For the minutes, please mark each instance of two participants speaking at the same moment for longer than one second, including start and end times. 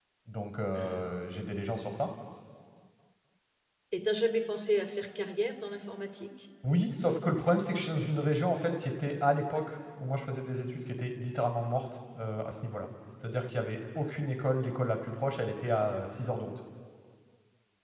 none

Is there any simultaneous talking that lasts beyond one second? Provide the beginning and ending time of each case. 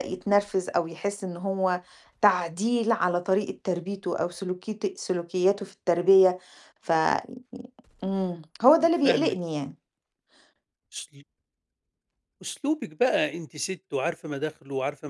none

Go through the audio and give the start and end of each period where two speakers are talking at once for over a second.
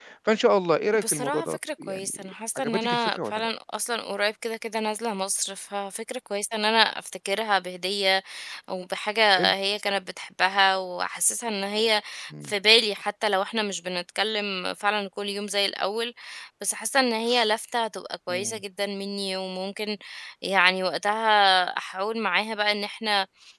1.0-3.5

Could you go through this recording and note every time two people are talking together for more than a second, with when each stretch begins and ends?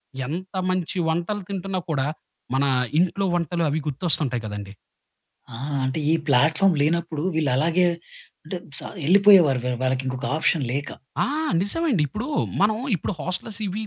none

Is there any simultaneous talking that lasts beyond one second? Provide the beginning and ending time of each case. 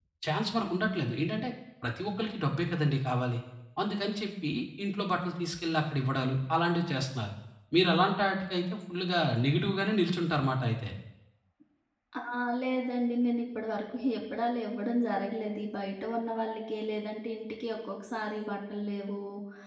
none

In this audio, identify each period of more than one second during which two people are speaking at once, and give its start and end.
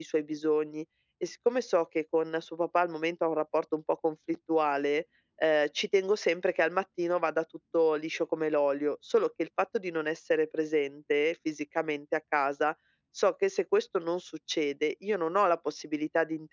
none

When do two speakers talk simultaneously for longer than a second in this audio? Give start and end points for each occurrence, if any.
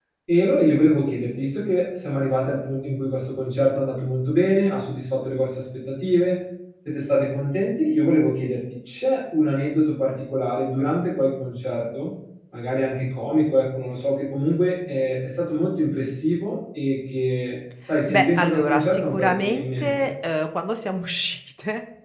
18.1-20.1

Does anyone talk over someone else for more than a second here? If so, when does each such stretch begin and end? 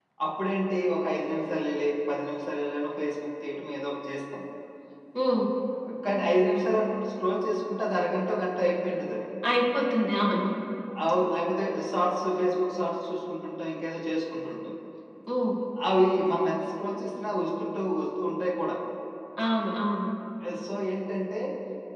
none

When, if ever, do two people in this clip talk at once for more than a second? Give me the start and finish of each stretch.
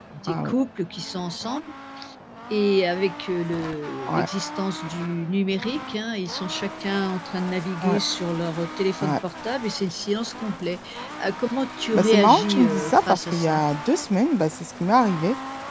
11.9-13.6

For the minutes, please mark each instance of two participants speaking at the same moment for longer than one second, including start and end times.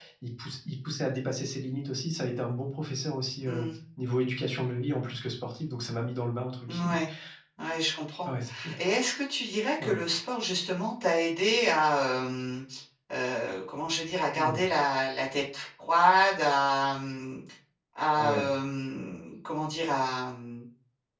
none

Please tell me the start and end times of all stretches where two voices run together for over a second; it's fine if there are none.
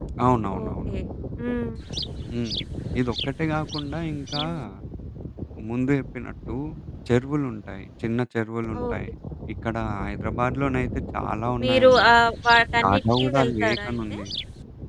12.8-14.2

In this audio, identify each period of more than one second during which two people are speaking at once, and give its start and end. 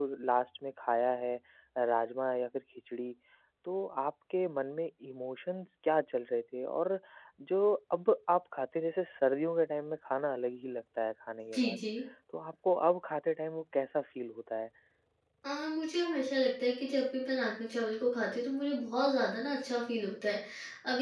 none

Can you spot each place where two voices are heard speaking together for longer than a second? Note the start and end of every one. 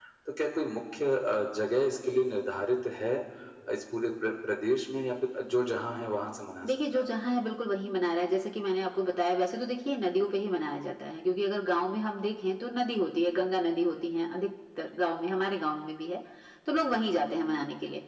none

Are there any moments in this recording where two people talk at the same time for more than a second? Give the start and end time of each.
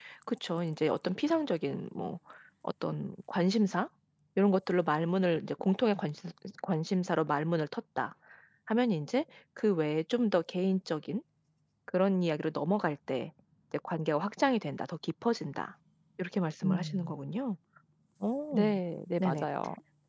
none

